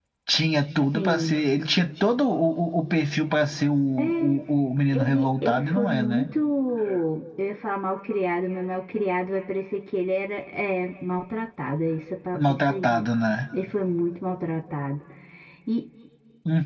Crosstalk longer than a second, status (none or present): present